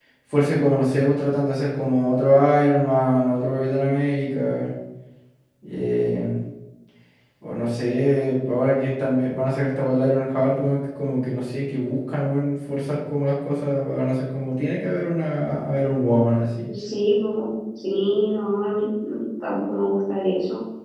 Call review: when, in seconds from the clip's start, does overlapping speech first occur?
none

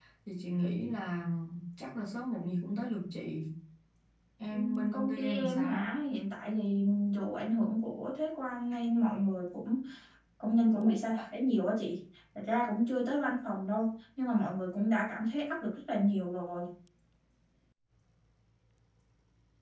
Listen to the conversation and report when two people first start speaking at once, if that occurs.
4.5 s

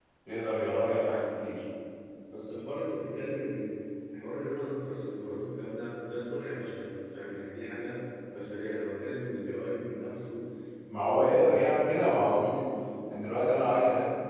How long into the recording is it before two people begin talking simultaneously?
11.0 s

